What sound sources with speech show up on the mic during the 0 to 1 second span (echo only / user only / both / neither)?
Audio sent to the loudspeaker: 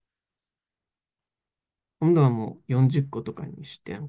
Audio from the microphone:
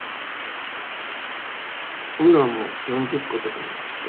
neither